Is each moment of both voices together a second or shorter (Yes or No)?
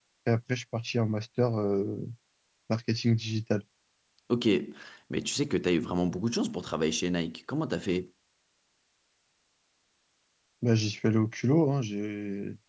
Yes